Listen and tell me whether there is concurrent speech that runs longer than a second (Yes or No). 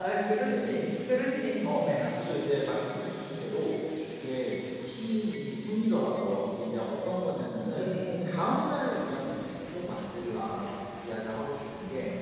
No